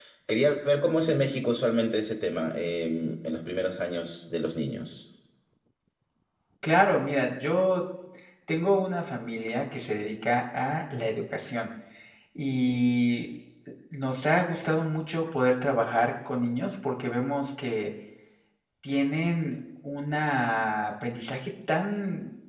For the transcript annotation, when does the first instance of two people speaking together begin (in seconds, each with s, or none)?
none